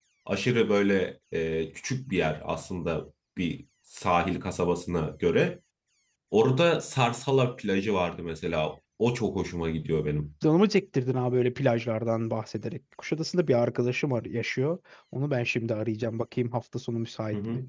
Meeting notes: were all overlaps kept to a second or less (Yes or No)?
Yes